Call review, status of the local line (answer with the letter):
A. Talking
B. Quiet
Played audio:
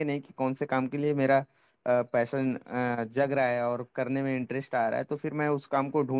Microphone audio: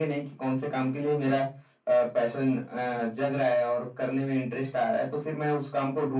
B